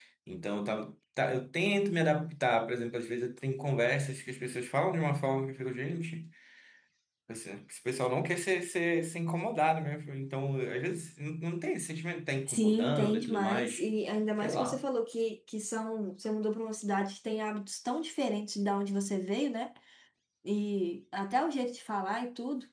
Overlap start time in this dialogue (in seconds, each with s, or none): 12.5 s